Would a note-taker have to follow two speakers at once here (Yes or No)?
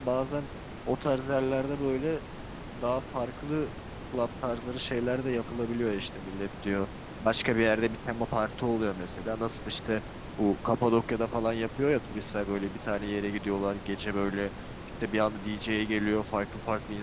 No